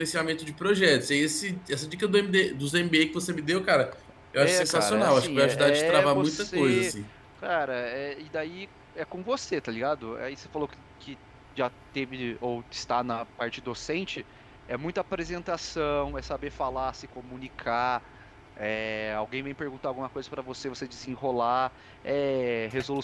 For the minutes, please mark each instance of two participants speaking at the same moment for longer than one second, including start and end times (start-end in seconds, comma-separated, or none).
4.4-6.9